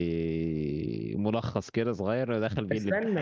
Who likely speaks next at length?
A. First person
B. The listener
B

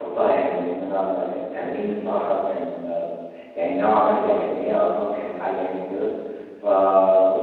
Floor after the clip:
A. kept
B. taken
A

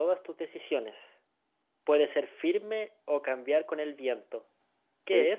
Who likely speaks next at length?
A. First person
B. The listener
B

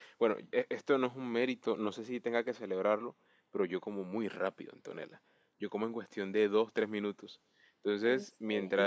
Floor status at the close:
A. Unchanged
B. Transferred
A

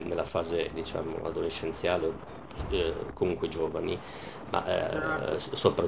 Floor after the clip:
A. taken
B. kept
B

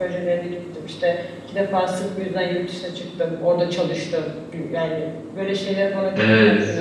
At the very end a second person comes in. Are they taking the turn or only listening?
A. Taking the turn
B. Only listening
A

